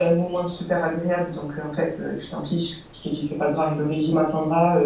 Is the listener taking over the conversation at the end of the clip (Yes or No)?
No